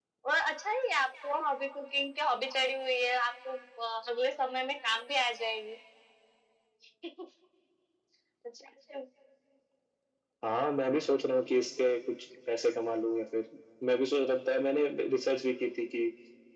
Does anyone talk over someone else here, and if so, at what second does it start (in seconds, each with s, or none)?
none